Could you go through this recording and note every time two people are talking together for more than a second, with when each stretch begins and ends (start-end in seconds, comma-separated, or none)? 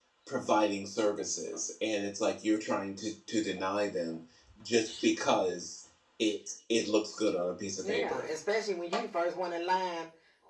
none